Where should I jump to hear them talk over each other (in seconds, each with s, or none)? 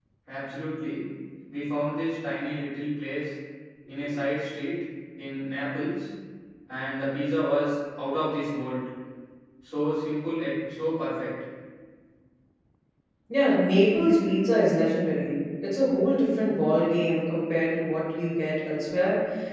none